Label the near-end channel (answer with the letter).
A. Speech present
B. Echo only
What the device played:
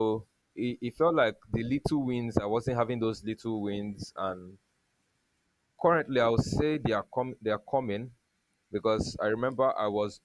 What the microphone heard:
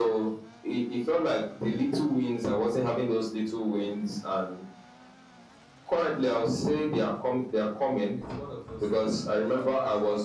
A